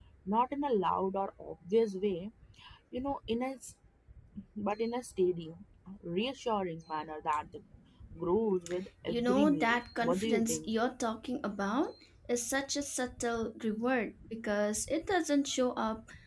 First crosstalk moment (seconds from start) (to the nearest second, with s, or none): 9 s